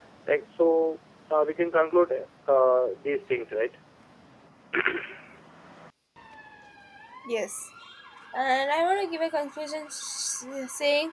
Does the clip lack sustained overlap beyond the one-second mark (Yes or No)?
Yes